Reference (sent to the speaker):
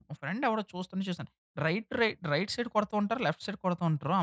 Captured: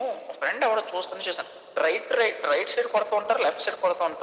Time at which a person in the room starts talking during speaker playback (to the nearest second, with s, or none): none